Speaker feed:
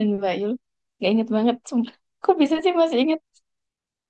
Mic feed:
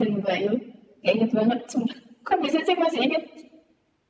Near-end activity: none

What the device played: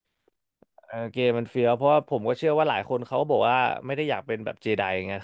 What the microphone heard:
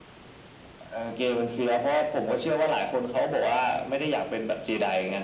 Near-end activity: none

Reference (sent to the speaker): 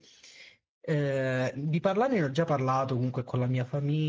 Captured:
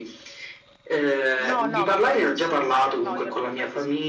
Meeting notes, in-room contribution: present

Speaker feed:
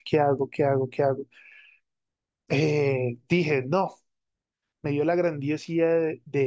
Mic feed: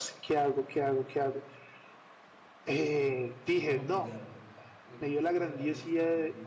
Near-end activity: present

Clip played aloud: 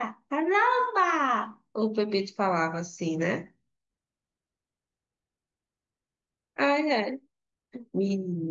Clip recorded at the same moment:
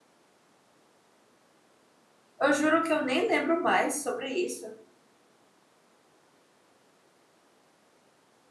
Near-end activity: present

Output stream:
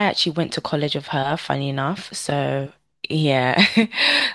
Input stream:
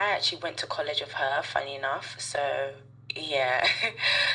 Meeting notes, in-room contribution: none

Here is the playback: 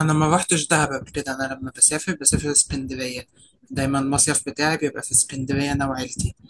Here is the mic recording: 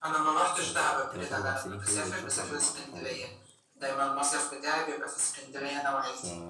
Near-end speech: present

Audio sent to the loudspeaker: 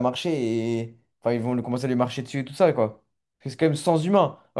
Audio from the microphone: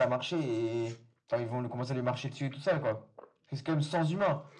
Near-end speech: none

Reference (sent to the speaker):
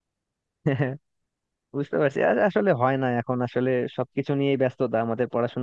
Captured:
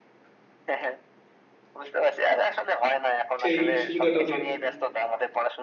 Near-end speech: present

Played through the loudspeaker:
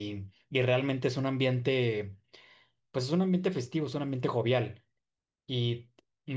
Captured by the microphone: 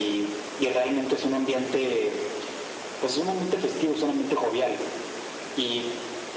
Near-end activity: none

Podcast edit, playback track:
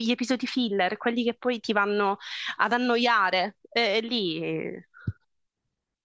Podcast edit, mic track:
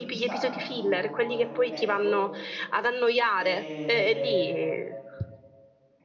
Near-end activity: present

